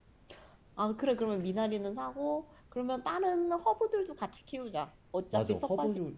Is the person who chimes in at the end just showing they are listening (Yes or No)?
No